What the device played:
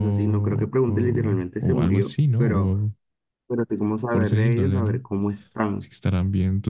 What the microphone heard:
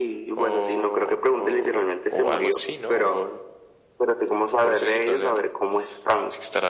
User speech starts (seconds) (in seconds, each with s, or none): none